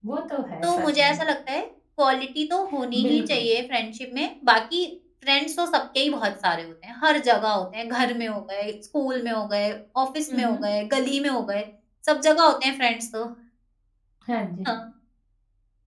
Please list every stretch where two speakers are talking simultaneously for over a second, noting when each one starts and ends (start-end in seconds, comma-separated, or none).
none